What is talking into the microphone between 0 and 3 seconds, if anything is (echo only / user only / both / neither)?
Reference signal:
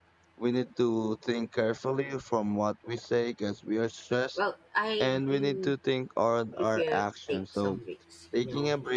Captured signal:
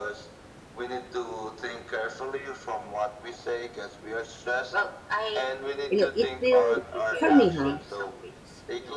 echo only